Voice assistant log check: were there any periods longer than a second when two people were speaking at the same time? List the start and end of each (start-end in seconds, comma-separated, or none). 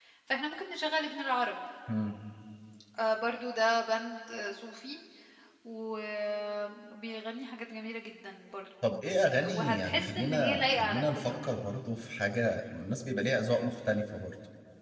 9.4-11.4